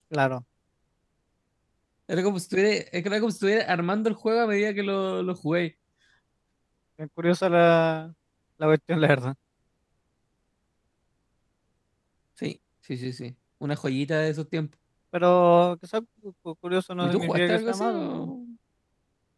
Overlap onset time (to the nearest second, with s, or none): 17 s